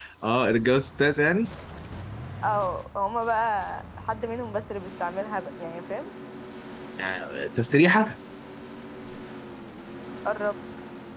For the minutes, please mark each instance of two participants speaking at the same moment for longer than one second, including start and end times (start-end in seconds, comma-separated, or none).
none